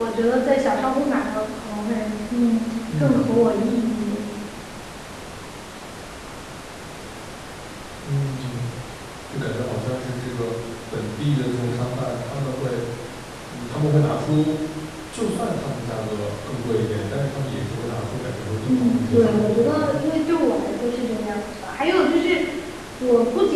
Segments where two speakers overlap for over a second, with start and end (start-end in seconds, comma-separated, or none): 18.7-20.0